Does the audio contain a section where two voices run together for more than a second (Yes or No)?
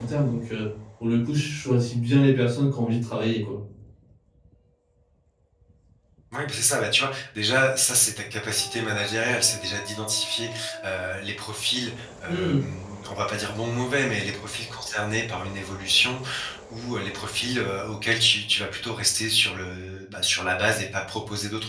No